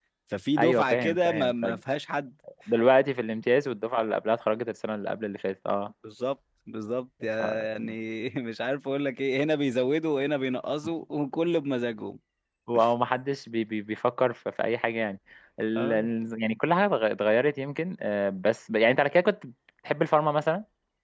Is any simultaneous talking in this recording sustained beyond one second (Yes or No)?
Yes